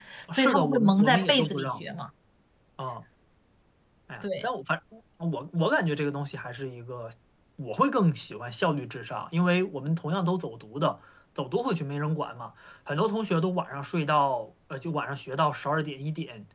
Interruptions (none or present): present